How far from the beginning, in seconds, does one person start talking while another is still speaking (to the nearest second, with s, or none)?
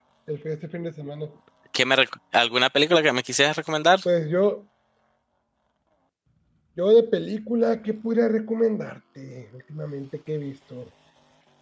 none